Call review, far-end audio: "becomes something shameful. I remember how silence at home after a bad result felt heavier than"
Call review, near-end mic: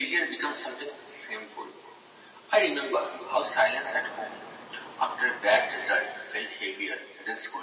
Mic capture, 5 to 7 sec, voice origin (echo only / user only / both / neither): echo only